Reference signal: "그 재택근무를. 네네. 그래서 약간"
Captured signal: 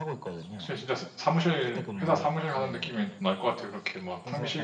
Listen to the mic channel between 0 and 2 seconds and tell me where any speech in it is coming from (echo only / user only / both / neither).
both